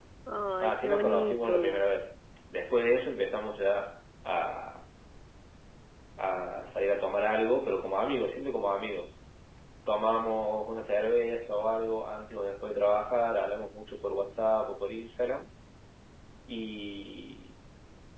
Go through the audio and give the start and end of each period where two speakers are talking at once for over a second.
0.6-1.8

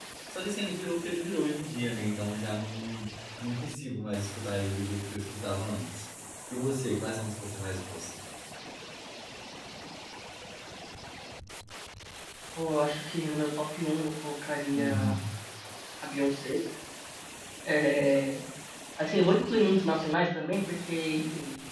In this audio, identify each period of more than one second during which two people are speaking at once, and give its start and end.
none

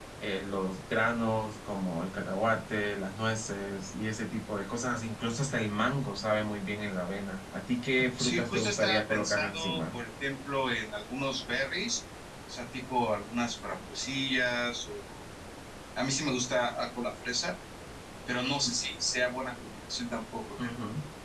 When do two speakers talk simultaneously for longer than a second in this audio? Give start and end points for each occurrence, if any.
8.2-10.0

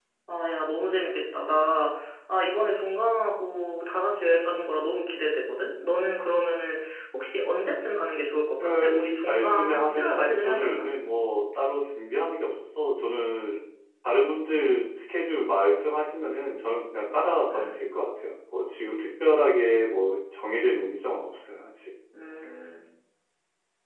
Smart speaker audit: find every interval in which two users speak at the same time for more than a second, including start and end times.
8.6-10.9

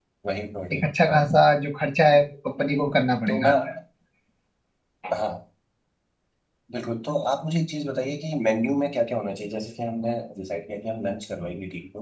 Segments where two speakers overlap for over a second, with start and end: none

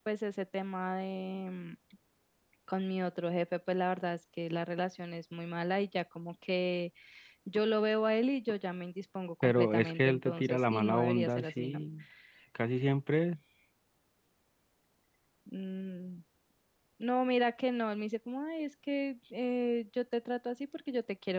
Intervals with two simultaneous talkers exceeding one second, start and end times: 9.4-11.8

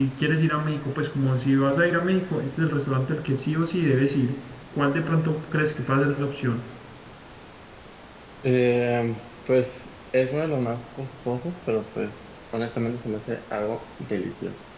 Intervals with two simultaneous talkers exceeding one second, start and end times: none

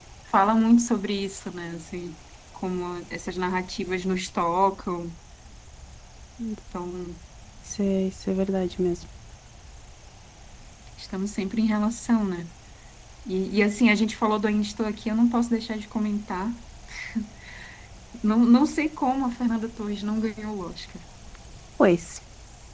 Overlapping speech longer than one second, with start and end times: none

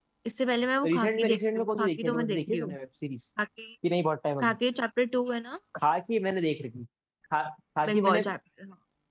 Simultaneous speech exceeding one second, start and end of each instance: 0.8-2.7

